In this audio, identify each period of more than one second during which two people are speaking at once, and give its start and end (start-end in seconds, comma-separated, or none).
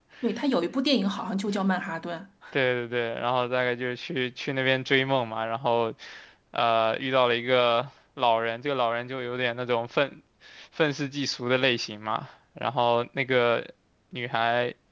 none